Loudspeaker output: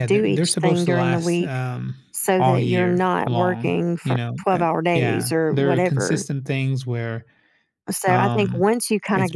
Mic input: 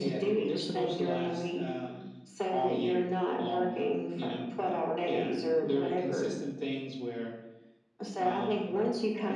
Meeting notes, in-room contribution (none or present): none